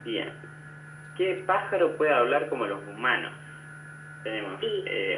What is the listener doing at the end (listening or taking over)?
listening